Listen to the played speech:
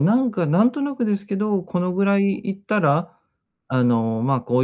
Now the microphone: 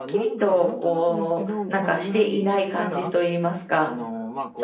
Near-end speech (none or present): present